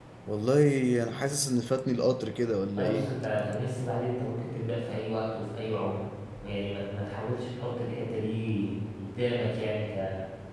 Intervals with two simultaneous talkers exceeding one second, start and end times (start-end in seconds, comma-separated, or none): none